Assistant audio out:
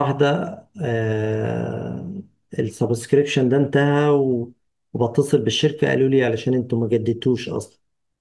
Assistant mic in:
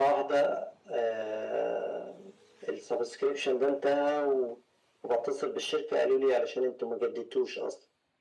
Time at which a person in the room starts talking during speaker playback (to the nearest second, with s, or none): none